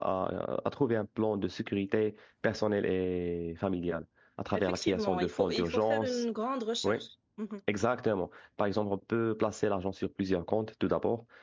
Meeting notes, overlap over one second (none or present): present